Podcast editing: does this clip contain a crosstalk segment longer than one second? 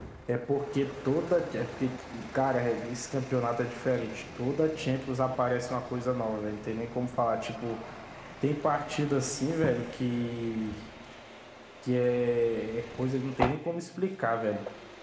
No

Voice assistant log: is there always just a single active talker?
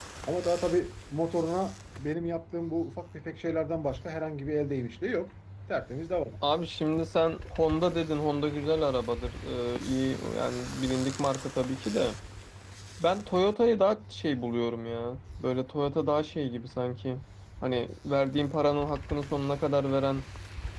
Yes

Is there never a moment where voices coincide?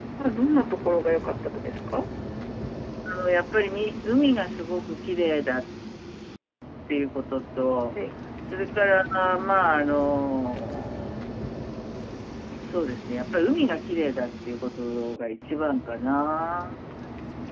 Yes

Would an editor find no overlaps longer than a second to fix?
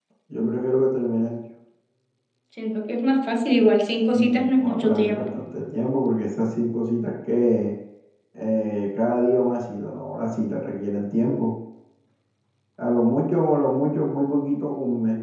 No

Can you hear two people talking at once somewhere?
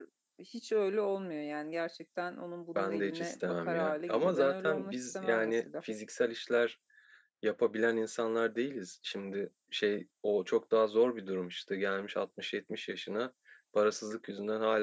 Yes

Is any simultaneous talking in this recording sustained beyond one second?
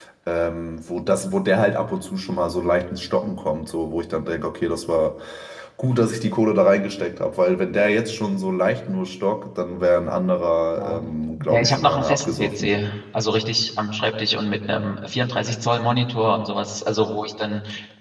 Yes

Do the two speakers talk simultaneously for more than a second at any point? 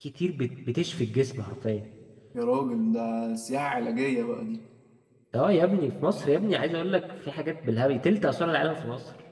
No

